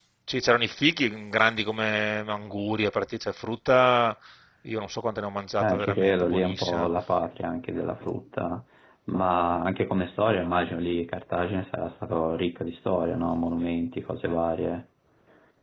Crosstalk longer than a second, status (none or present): present